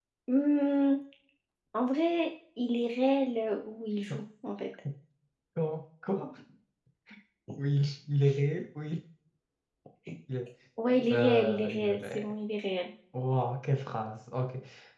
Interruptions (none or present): present